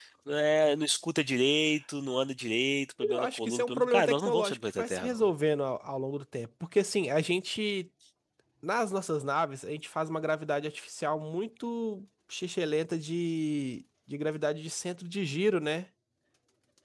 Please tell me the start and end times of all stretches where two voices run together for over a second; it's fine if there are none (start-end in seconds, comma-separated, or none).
3.0-5.3